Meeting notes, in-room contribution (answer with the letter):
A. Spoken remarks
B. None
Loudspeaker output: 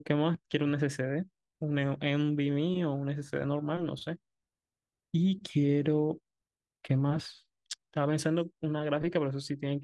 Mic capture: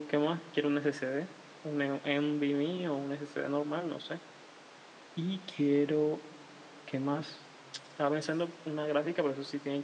B